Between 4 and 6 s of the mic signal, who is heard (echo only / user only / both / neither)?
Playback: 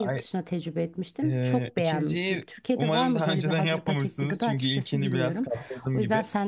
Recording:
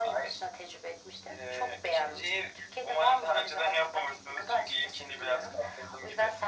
echo only